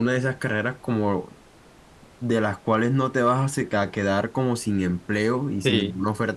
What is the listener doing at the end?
listening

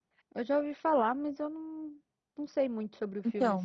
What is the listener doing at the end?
taking over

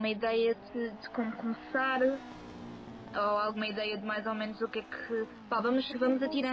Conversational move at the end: listening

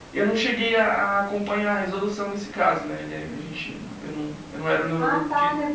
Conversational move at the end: taking over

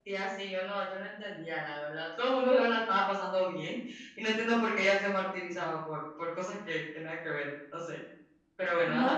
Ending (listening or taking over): taking over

